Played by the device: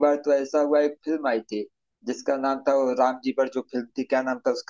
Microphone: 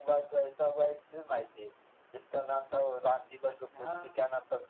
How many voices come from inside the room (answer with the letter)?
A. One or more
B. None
A